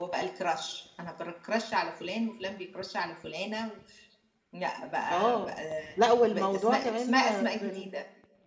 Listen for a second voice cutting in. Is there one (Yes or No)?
Yes